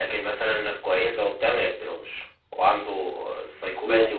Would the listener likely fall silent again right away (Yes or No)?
Yes